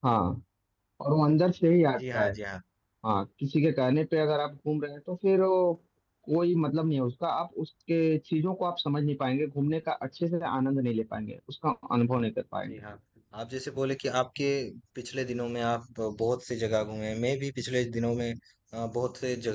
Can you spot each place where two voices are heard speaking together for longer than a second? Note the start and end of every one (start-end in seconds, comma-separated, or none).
none